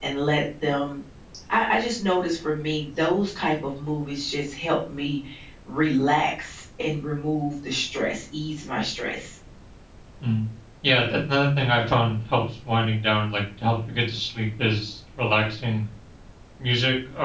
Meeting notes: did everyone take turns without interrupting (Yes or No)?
Yes